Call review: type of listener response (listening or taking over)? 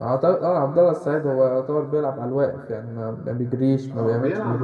taking over